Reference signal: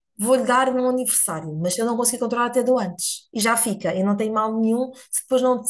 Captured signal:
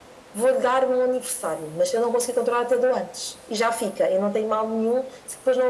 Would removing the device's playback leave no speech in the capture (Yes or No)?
Yes